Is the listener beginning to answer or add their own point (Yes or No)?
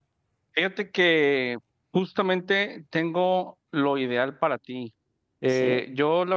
No